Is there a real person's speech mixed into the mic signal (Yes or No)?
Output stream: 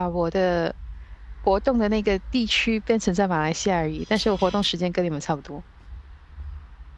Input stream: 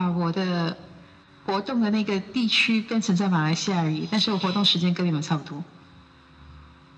No